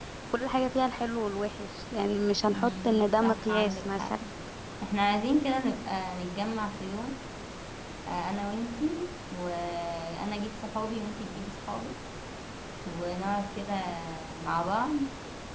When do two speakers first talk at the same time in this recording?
2.5 s

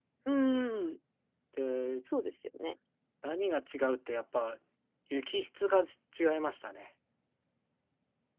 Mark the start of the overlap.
none

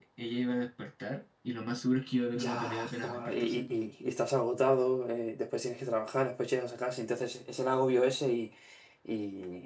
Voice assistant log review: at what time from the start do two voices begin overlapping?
2.3 s

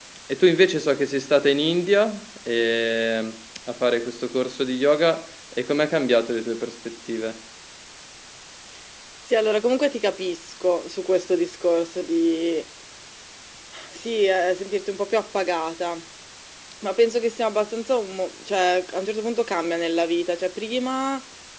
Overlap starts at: none

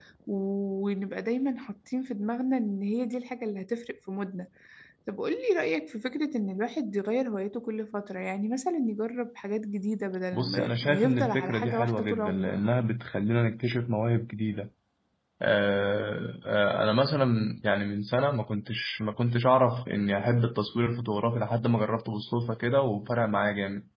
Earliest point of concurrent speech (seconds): 10.3 s

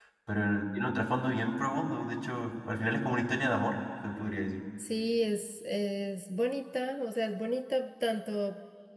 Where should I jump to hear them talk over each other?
none

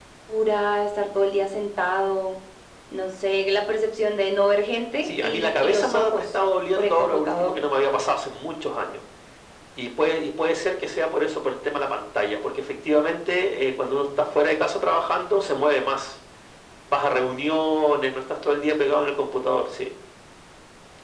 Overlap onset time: 5.0 s

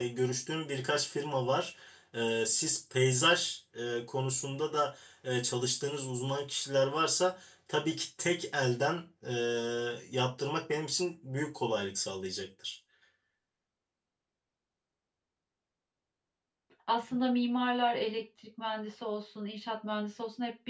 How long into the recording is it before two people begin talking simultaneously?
none

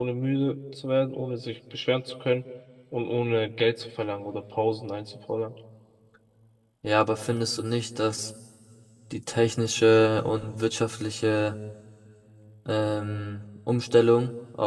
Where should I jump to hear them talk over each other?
none

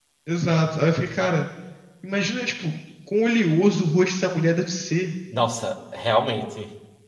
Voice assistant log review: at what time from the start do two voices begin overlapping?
none

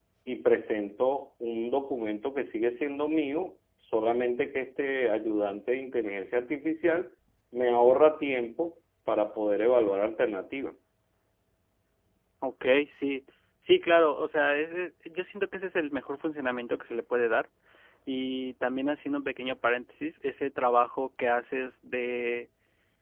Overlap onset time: none

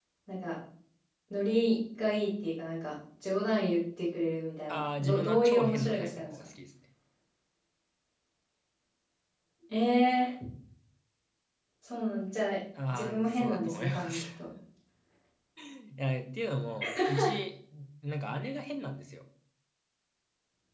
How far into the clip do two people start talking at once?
4.7 s

